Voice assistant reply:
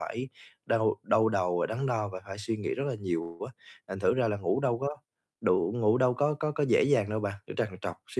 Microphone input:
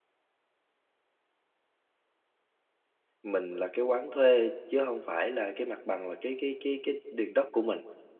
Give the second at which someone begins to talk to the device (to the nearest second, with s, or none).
3 s